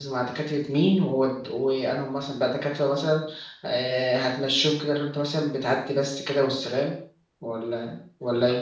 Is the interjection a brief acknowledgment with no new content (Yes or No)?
No